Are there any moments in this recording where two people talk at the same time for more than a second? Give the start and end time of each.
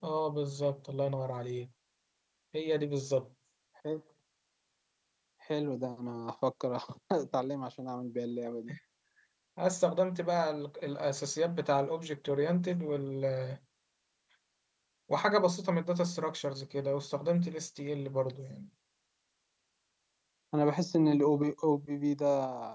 none

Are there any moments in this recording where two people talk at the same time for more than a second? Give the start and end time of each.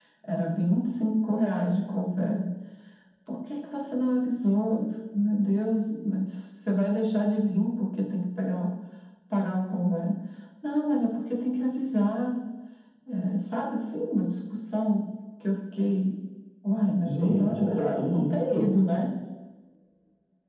17.0-18.7

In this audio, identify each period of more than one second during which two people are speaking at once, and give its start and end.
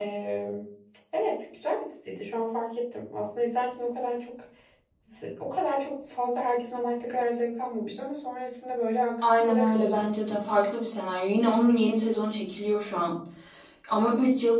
9.3-10.6

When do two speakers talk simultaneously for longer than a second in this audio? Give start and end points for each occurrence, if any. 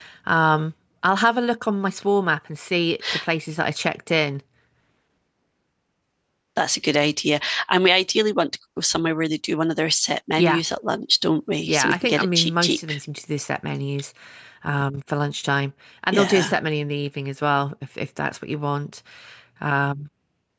11.6-12.9

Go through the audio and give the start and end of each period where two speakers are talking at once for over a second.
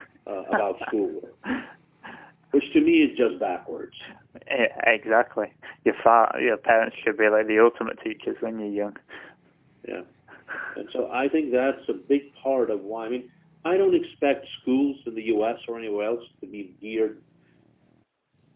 none

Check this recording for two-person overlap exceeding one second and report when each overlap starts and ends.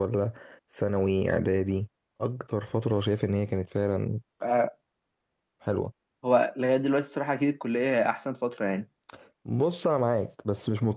none

